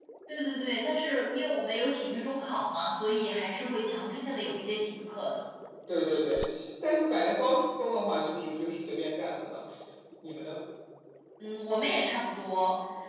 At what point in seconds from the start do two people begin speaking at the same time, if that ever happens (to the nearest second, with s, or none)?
none